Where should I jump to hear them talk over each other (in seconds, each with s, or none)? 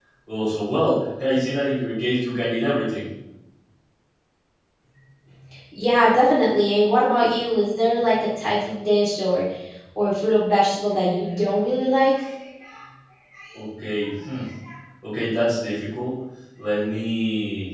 none